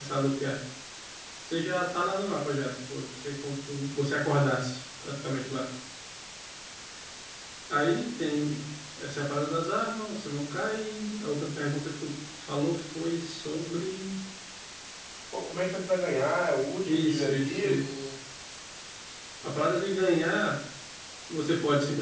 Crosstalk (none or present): present